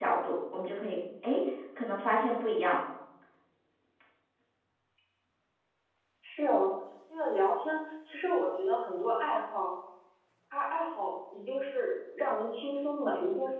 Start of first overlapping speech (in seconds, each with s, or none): none